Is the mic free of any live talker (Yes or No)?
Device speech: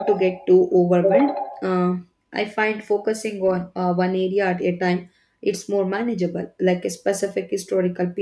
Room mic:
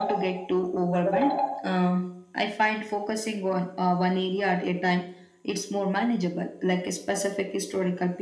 Yes